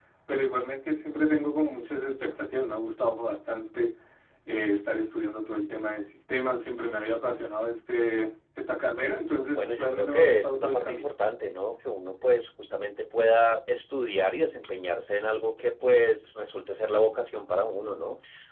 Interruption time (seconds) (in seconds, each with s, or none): 9.5 s